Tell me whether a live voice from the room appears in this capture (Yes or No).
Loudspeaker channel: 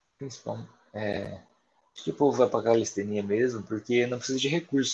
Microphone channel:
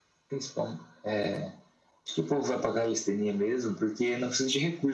No